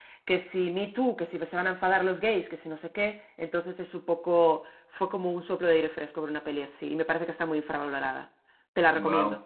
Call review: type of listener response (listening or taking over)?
taking over